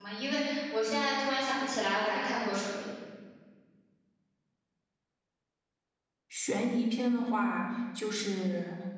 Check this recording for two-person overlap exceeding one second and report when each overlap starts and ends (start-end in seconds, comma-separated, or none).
none